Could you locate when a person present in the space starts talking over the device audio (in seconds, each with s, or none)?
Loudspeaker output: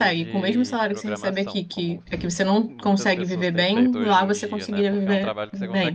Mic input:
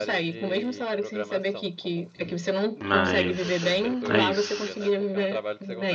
2.8 s